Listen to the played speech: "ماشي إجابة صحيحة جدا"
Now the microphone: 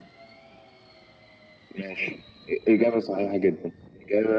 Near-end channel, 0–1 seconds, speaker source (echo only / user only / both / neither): neither